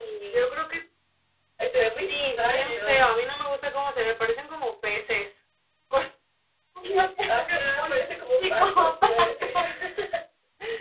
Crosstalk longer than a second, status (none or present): present